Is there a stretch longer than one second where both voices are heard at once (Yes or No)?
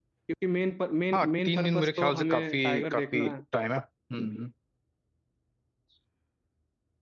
Yes